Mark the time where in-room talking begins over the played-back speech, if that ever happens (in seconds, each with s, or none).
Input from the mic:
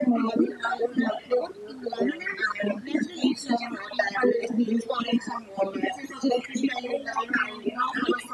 none